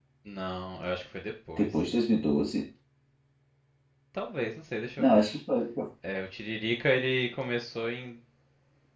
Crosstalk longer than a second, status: none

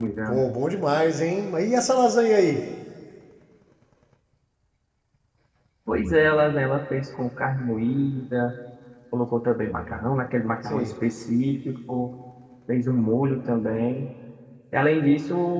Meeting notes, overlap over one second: none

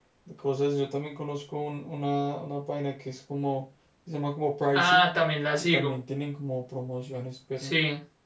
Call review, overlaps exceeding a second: none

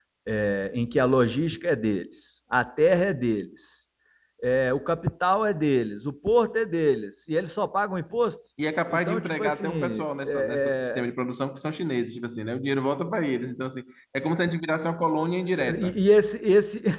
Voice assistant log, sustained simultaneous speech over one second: present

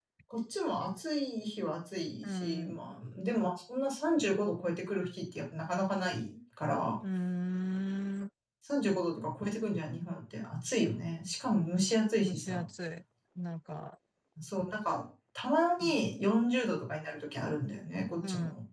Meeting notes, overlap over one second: none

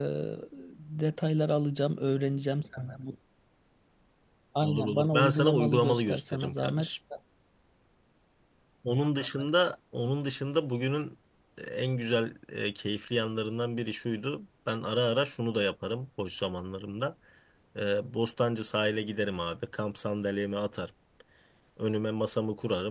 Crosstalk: present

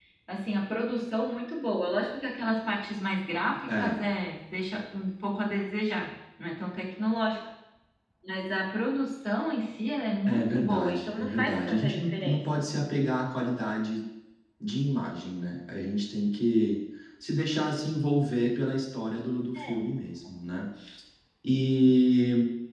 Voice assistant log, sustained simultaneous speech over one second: present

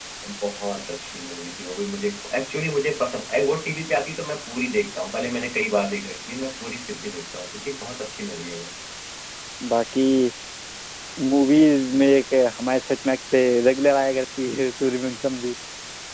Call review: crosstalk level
none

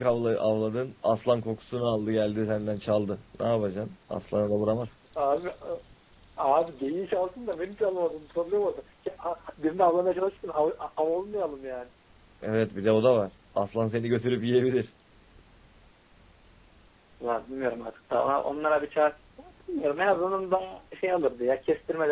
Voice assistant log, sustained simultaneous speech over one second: none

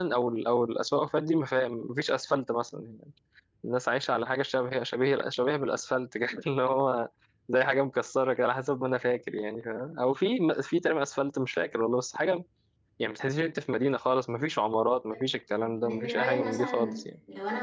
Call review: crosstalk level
present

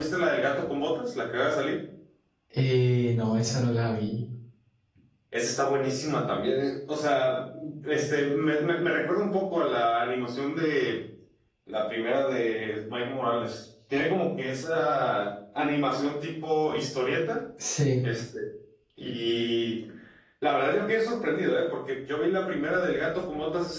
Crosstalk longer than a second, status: none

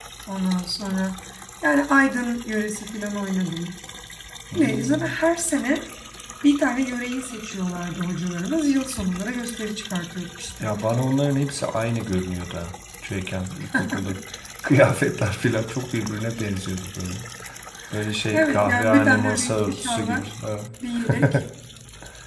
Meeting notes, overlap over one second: present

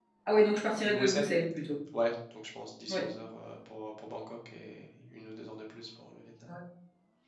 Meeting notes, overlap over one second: none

